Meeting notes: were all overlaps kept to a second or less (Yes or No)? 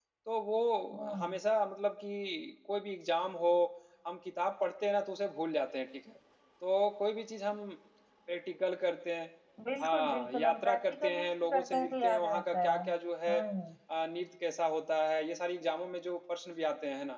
No